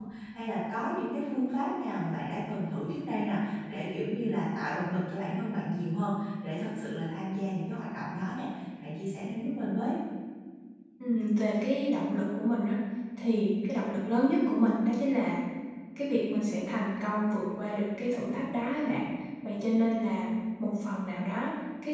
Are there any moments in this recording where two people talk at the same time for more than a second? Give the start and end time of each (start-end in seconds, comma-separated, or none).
none